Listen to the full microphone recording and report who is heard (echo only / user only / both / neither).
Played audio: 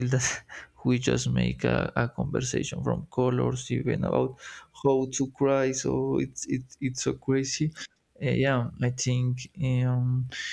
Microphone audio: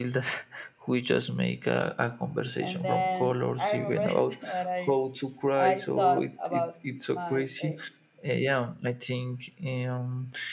both